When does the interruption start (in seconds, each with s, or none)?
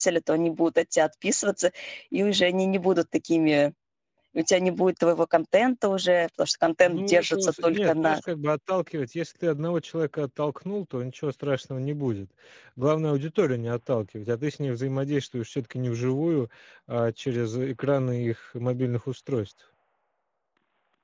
6.8 s